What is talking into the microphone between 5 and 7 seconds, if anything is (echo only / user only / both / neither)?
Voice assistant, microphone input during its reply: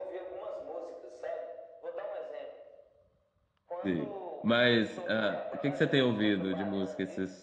both